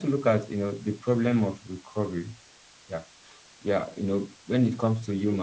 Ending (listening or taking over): listening